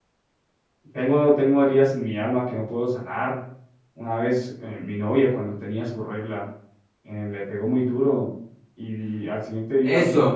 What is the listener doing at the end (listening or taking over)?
taking over